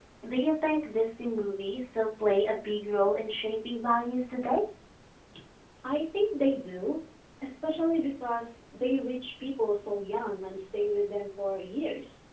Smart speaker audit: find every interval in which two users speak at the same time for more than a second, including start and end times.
none

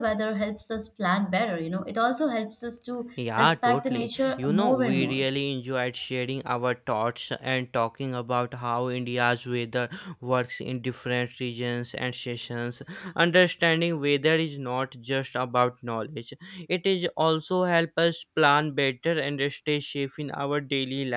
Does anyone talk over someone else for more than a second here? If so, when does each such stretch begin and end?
3.4-5.2

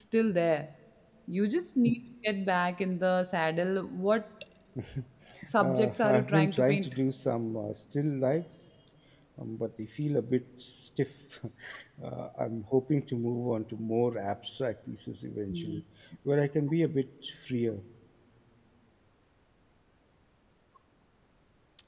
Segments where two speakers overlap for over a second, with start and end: 5.6-7.0

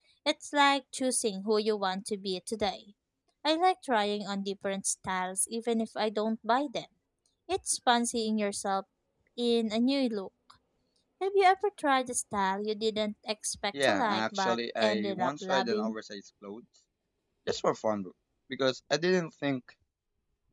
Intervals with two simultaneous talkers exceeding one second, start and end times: 13.8-15.9

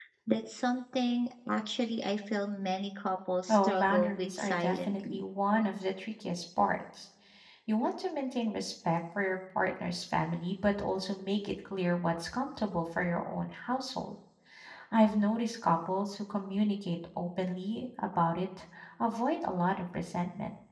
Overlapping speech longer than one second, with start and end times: 3.5-5.2

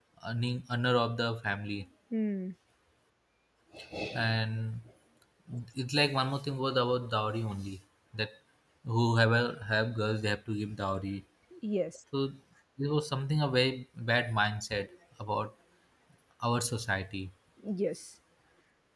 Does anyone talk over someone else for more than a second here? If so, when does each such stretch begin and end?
none

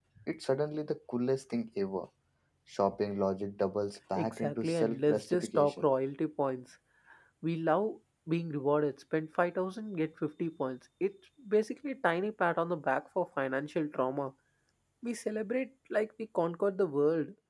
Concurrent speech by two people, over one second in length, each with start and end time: 4.2-5.8

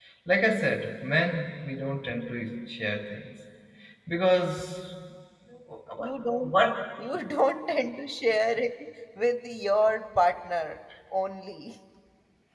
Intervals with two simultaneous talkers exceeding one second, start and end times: none

